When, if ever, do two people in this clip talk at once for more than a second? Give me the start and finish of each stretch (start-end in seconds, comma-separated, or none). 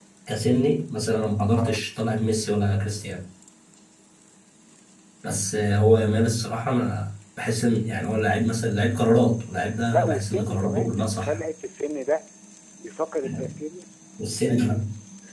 9.9-11.4